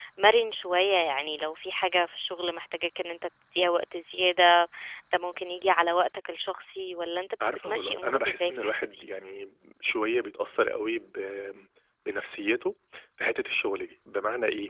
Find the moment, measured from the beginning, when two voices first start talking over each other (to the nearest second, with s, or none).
7 s